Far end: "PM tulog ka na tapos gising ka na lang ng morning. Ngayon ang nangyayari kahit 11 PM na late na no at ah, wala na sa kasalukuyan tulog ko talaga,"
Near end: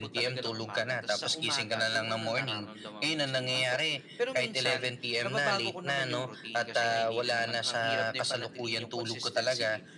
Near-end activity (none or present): present